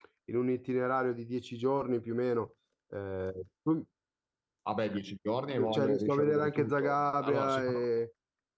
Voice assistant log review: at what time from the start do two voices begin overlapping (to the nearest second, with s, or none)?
6 s